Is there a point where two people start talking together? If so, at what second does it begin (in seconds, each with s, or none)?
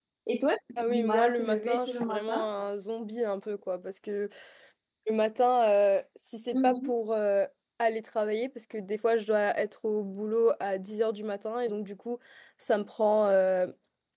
0.8 s